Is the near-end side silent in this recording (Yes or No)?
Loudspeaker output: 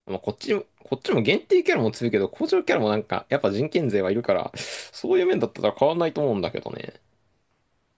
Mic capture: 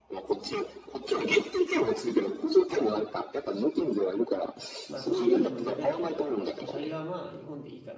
No